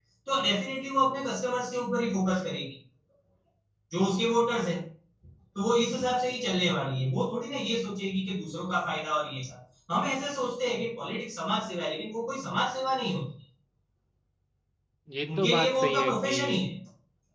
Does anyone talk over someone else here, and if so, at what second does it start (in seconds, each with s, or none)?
15.4 s